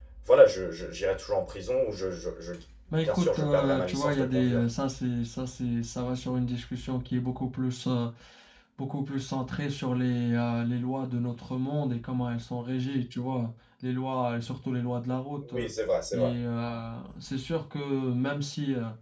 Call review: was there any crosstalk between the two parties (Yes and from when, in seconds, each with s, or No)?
Yes, from 3.0 s